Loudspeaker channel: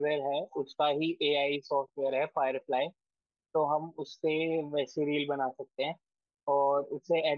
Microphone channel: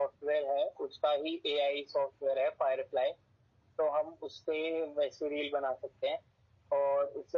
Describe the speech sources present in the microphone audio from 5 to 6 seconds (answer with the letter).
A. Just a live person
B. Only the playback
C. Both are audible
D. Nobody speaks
B